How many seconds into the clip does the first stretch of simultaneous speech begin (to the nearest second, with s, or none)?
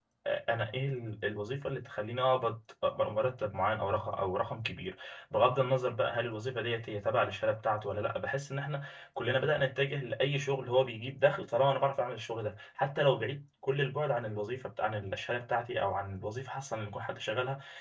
none